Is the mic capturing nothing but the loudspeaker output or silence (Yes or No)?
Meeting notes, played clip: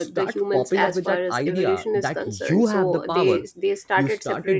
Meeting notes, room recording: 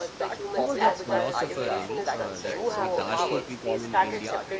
No